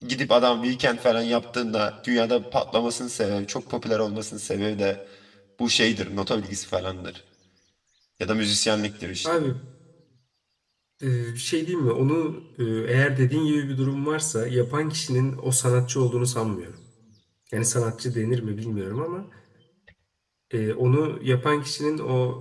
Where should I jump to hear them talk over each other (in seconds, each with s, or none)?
none